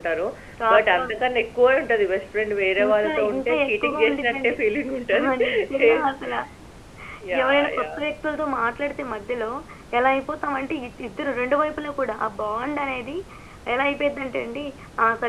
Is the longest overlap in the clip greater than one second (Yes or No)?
Yes